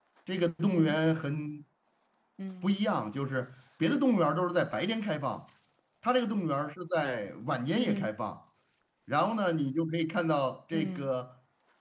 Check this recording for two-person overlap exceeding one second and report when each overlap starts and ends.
none

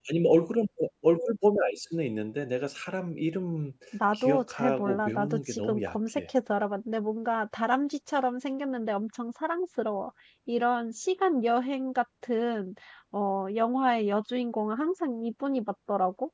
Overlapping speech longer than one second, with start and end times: 4.1-6.2

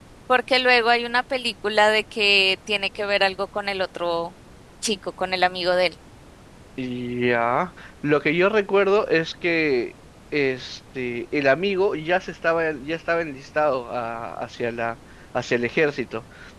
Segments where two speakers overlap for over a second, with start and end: none

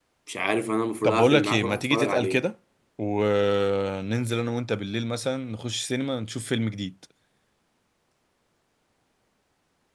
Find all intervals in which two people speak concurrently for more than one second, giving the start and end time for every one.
1.0-2.5

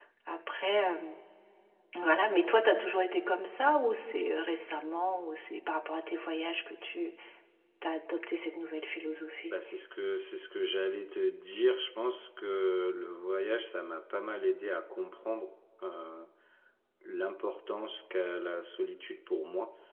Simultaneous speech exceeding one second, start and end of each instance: none

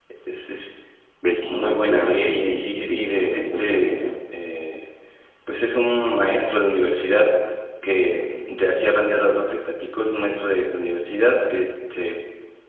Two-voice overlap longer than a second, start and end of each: 1.4-4.1

